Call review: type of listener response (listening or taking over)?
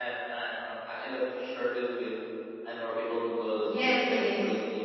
taking over